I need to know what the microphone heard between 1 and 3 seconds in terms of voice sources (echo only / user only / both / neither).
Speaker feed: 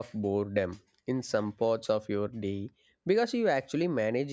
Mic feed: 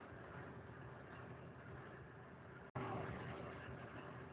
neither